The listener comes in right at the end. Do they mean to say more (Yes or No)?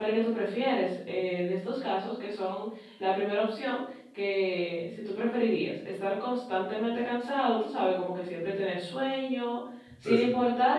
No